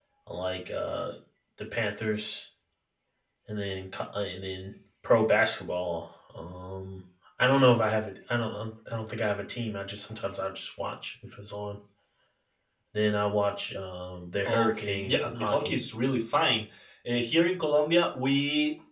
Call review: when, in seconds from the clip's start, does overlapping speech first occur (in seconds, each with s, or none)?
14.4 s